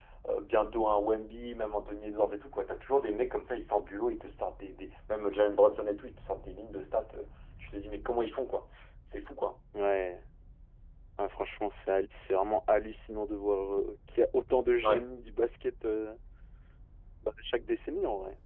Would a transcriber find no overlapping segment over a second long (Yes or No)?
Yes